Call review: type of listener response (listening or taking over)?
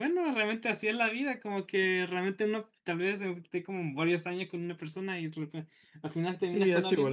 taking over